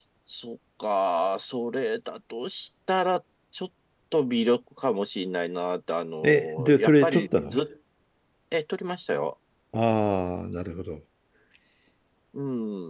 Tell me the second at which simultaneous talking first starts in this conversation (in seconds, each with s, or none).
6.2 s